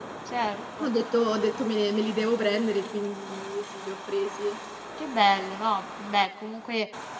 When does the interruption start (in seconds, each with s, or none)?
none